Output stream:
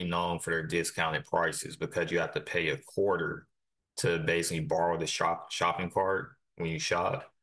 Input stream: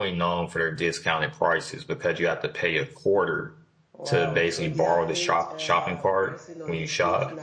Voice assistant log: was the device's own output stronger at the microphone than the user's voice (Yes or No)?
Yes